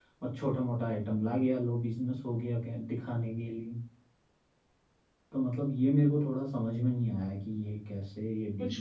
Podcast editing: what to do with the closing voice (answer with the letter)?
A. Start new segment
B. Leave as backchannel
A